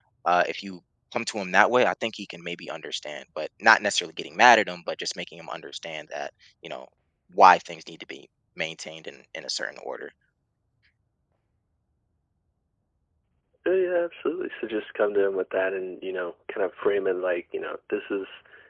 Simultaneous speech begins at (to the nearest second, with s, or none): none